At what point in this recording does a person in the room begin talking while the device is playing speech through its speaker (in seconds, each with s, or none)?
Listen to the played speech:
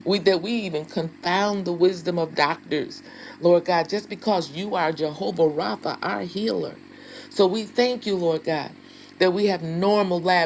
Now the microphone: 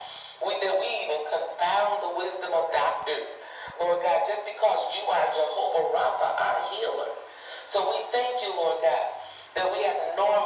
none